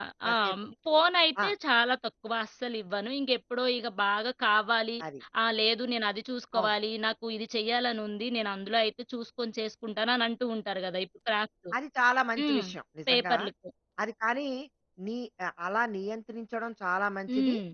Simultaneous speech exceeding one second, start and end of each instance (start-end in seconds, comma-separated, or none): none